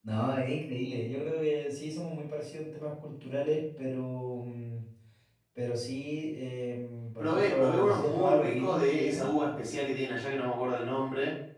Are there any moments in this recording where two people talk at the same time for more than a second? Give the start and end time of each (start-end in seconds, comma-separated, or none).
7.2-9.2